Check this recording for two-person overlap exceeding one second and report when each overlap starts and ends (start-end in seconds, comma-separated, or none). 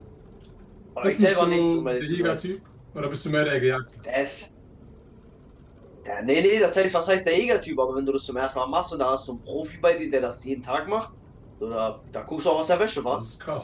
1.0-2.4